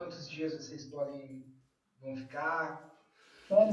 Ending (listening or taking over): taking over